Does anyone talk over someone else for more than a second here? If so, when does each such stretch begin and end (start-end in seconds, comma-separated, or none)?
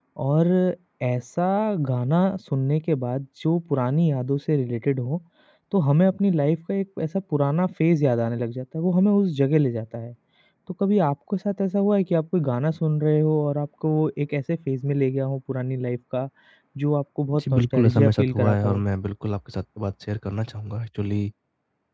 17.4-18.8